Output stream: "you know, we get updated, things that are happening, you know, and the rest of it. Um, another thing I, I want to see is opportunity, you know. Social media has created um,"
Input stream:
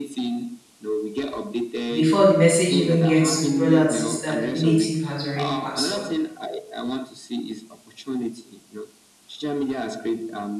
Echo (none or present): present